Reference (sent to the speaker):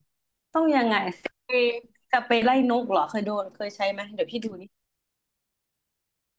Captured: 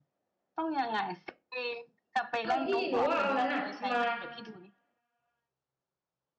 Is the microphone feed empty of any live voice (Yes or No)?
No